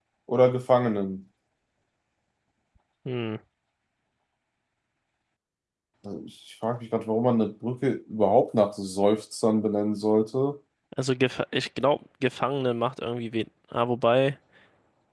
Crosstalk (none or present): none